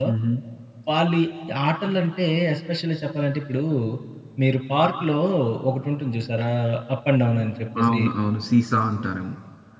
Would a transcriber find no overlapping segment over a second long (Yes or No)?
Yes